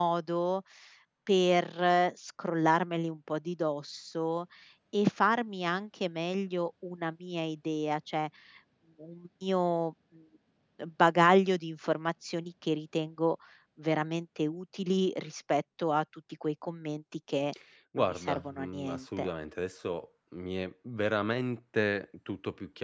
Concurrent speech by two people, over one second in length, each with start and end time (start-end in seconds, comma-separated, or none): 18.0-19.3